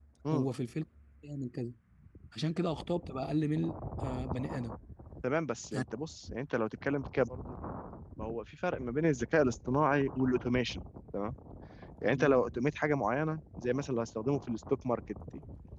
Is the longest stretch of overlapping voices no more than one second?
Yes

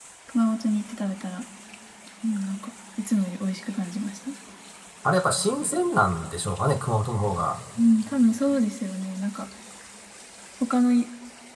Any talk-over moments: No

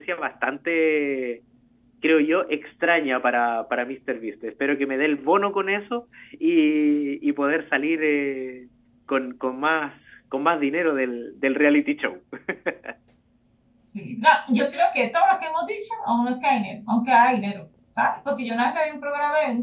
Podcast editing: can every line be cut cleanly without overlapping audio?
Yes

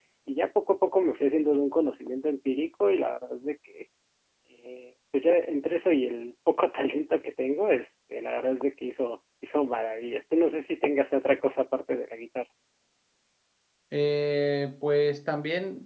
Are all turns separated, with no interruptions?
Yes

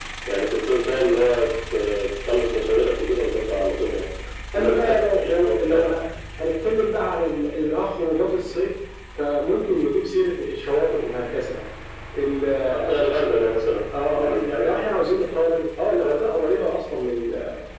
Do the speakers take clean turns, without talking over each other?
No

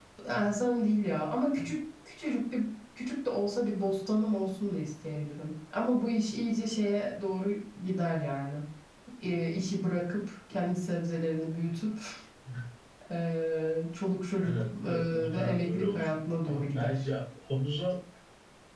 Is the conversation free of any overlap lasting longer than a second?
No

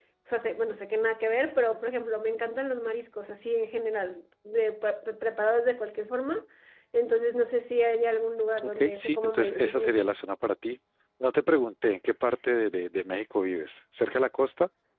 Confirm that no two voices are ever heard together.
No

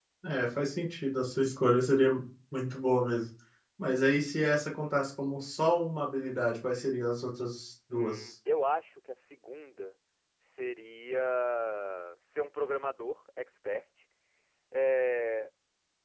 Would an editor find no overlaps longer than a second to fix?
Yes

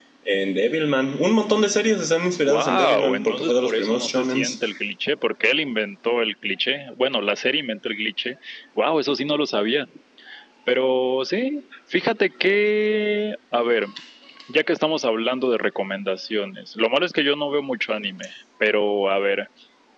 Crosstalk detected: Yes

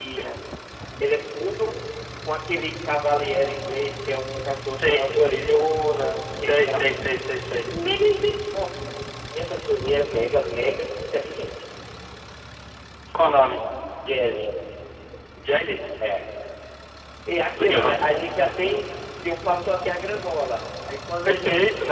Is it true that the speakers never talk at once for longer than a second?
Yes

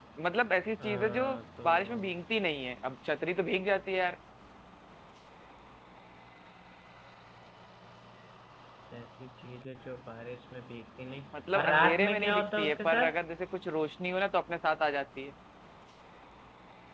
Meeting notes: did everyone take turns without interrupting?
No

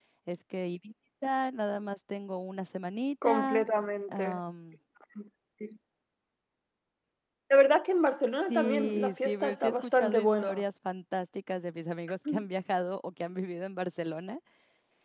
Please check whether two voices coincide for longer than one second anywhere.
Yes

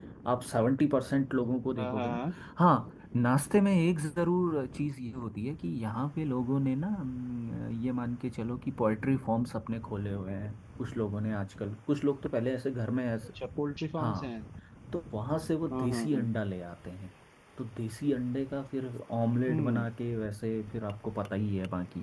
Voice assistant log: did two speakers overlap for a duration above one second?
No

